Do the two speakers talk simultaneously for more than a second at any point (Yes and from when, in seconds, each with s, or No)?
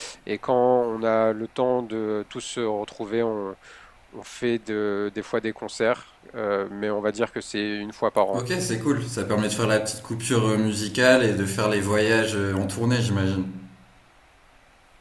No